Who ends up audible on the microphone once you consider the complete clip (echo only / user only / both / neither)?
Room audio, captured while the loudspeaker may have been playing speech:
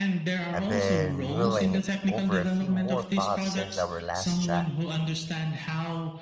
both